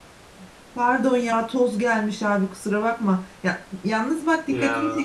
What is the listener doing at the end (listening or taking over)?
listening